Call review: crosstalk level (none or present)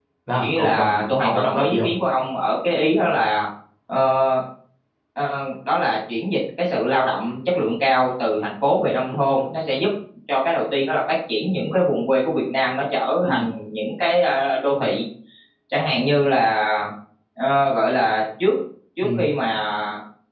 present